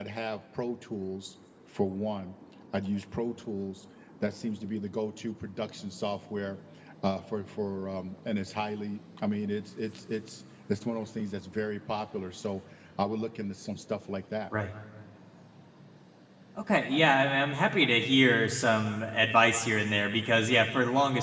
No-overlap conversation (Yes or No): Yes